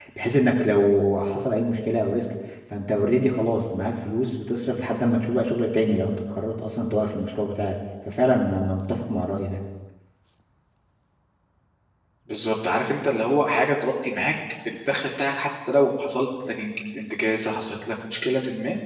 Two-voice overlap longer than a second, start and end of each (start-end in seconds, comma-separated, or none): none